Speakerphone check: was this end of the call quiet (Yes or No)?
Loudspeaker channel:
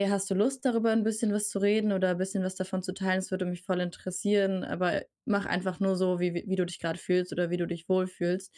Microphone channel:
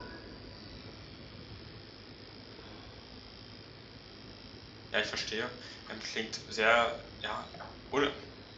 No